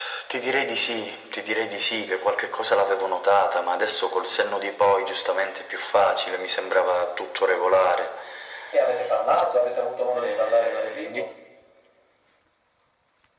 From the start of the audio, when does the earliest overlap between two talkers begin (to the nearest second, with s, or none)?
10 s